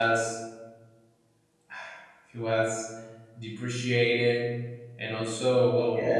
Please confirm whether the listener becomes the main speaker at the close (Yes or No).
No